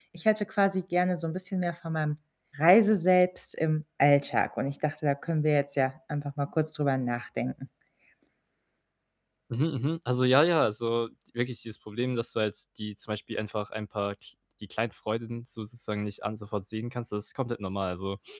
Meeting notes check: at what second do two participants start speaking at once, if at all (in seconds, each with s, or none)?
none